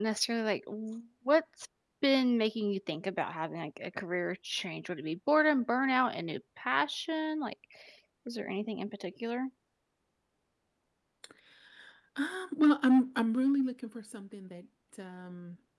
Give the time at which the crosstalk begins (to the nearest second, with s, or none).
none